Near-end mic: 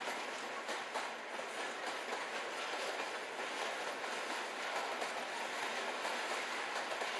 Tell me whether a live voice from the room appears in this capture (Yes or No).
No